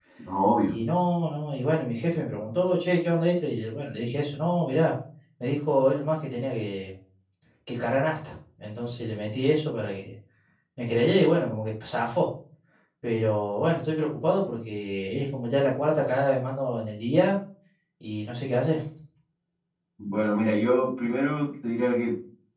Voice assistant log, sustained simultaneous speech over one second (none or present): none